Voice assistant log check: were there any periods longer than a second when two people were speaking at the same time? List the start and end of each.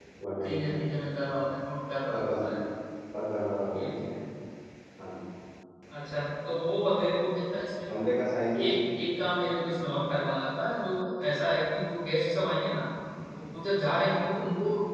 none

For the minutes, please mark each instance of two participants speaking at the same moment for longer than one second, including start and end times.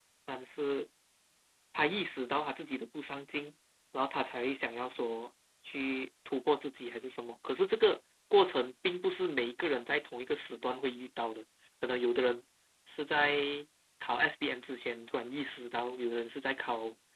none

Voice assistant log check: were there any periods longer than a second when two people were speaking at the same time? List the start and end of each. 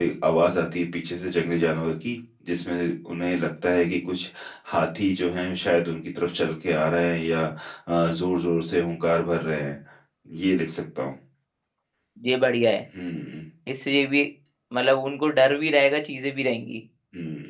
none

